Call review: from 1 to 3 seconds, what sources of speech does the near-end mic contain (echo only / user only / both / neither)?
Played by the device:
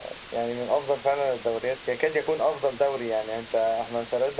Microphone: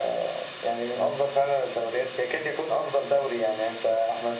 echo only